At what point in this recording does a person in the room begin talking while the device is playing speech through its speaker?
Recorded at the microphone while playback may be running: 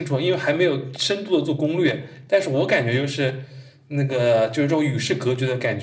none

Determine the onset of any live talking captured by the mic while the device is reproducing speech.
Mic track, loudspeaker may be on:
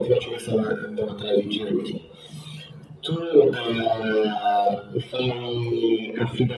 none

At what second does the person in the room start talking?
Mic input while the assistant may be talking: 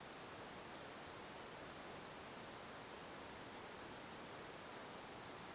none

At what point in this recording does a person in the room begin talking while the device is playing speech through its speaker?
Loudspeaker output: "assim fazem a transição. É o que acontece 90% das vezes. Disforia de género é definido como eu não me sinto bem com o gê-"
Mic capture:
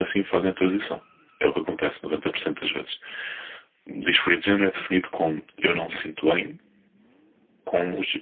none

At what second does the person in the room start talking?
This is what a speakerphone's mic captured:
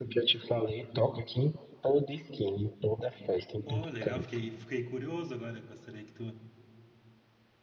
3.6 s

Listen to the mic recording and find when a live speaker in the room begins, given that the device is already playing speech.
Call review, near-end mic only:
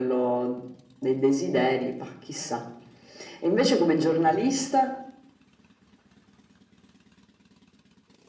none

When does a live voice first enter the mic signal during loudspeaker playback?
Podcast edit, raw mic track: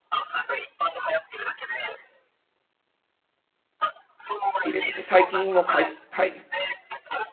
4.5 s

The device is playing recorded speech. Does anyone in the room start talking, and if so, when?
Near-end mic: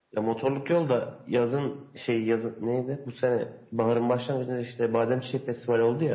none

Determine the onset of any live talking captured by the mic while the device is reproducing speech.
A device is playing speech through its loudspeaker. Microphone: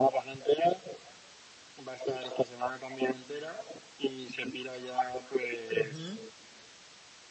5.7 s

